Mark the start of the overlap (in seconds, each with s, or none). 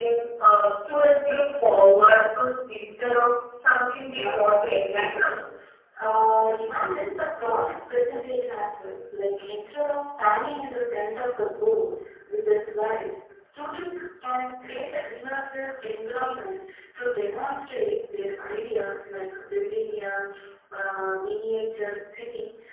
4.1 s